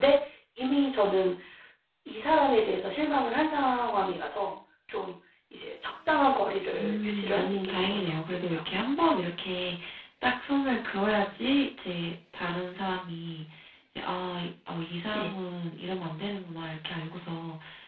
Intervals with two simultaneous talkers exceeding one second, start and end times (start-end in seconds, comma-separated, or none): 6.8-8.6